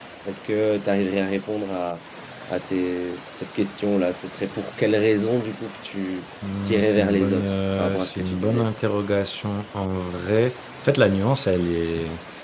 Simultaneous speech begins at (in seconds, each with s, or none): 6.7 s